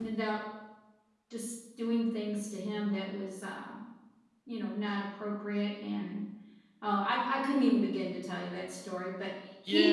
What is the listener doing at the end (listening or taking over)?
taking over